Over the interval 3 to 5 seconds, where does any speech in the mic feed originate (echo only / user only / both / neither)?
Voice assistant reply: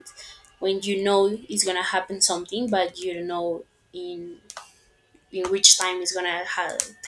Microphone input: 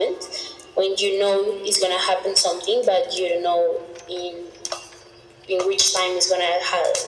echo only